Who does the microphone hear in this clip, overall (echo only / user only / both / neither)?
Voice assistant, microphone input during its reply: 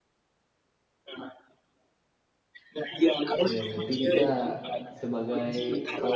both